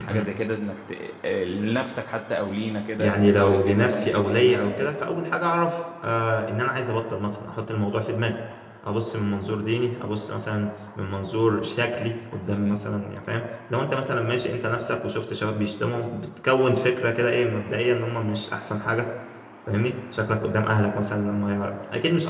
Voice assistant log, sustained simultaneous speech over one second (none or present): present